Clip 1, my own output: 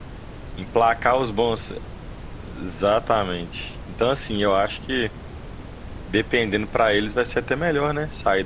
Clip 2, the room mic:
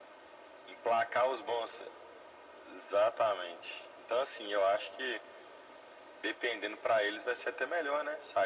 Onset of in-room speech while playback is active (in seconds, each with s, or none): none